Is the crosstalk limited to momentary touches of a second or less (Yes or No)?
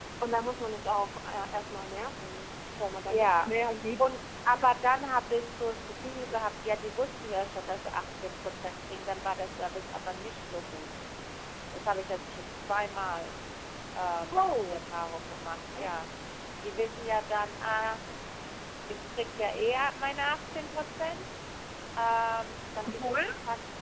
Yes